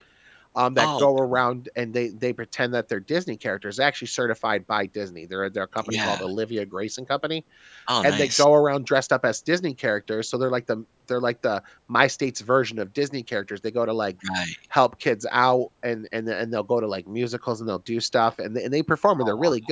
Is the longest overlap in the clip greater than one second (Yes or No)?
No